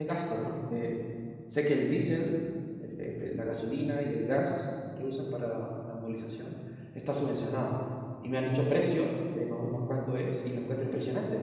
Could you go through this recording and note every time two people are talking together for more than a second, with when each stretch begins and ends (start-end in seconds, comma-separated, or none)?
none